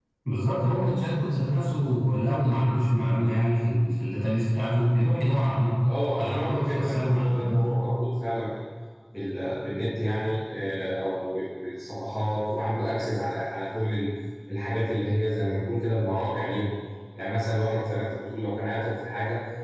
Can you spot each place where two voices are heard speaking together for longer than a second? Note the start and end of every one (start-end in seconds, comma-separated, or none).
6.2-7.7